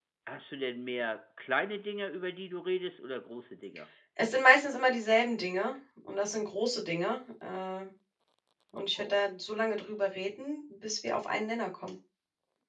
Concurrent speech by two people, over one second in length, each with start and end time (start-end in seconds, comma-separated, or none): none